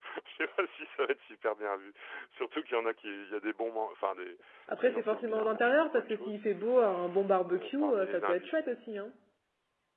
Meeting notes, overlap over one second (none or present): present